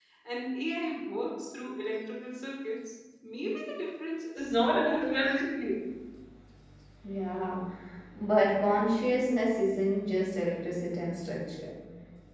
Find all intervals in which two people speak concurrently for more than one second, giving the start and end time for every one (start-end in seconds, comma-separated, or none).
4.4-5.8